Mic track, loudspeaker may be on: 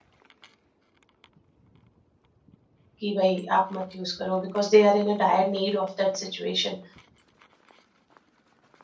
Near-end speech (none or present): present